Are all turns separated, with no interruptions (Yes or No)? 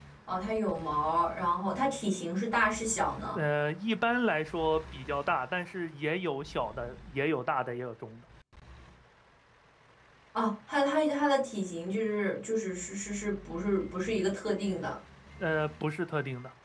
Yes